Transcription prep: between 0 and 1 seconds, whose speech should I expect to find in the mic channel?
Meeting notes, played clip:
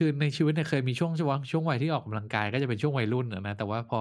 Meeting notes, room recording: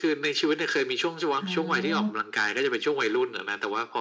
echo only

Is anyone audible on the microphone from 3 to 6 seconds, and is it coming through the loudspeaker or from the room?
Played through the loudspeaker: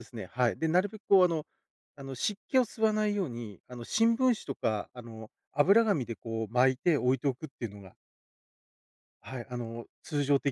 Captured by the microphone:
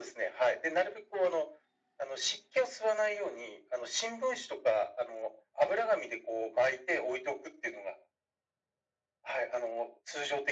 echo only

